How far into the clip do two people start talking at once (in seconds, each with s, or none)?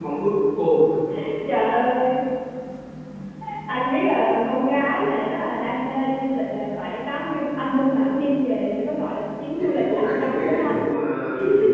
9.6 s